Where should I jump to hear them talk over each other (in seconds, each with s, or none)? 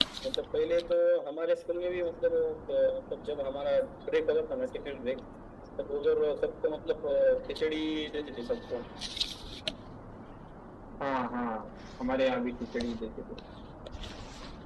none